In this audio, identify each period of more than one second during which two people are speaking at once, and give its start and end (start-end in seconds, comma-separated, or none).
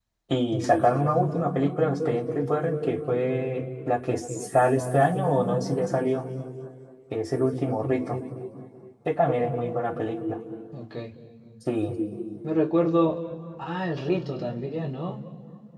none